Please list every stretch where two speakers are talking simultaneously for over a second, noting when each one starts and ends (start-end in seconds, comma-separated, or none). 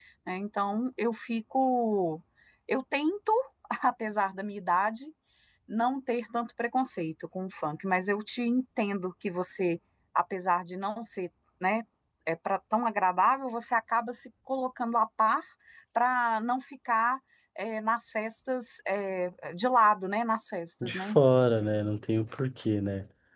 none